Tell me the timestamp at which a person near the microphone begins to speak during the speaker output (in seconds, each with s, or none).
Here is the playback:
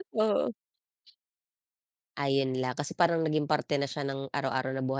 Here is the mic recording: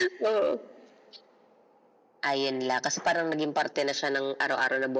none